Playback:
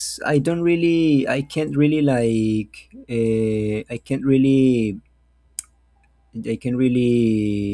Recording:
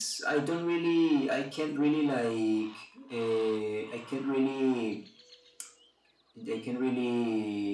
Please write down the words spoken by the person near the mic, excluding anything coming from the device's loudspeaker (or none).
none